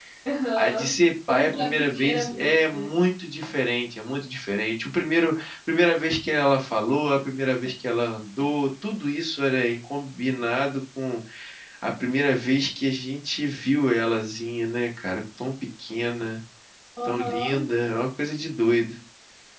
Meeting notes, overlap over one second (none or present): present